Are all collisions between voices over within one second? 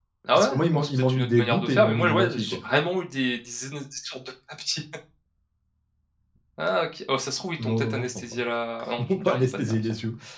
No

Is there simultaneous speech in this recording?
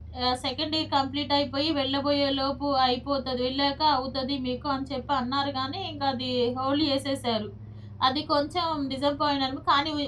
No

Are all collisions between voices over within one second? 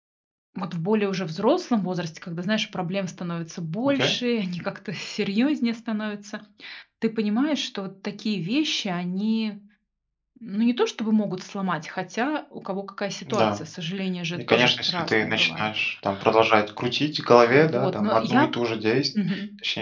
No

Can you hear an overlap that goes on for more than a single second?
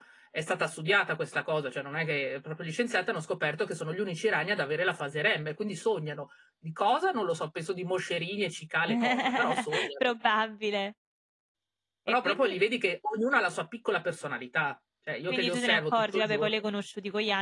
Yes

